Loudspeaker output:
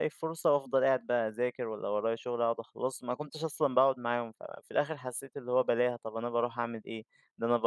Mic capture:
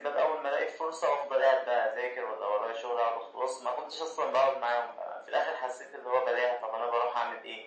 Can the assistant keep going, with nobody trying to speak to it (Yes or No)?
Yes